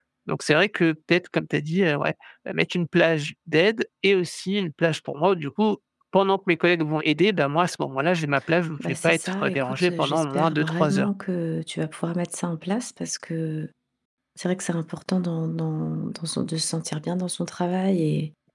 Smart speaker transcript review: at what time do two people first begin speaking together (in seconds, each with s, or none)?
8.8 s